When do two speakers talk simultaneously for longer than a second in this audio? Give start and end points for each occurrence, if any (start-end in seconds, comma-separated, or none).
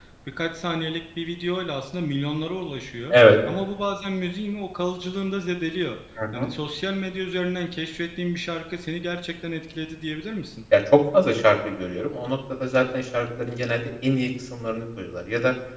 none